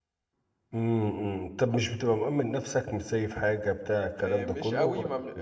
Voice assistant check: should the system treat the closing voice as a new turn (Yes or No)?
Yes